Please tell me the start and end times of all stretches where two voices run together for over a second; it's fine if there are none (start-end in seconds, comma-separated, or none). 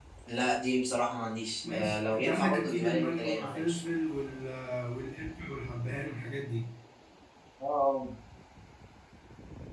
1.7-3.8